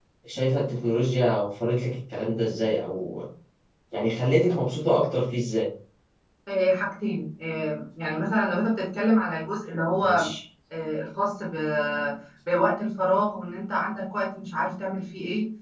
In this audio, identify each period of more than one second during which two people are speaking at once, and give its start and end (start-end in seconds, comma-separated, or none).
none